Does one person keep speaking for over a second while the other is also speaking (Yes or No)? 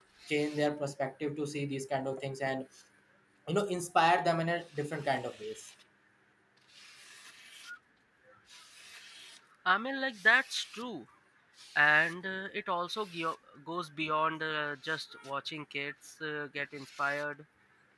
No